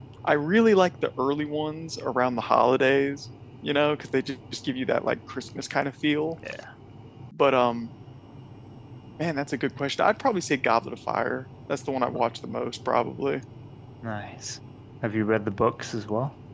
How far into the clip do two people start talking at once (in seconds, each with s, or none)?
none